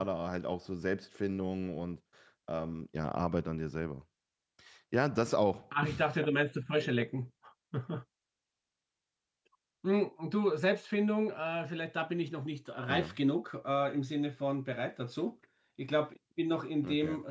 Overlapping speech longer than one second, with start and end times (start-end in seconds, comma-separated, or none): none